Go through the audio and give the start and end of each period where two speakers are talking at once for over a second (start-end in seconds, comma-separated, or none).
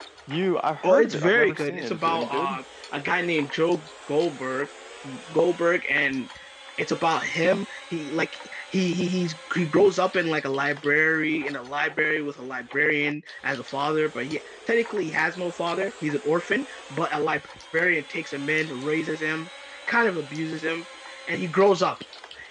0.8-2.5